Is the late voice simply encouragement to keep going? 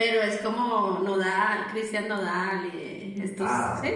No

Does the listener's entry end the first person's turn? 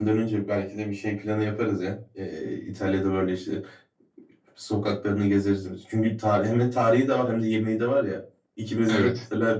No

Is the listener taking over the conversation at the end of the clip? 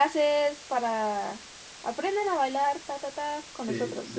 Yes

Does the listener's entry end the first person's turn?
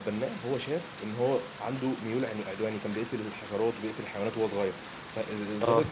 No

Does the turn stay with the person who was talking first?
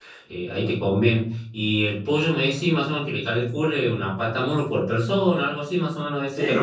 No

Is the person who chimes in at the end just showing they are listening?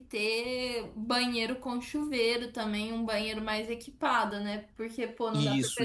Yes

